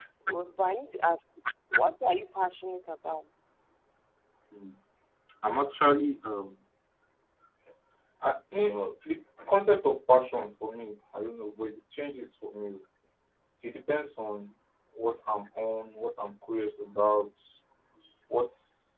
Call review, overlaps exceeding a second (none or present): none